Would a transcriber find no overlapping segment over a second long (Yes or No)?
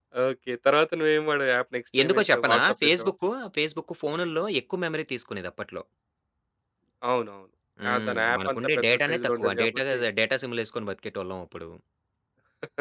No